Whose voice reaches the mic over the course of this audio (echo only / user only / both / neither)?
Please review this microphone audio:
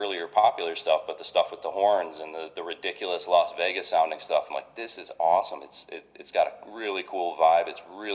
echo only